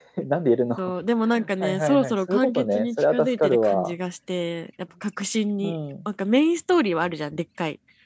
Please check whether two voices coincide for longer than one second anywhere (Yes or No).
Yes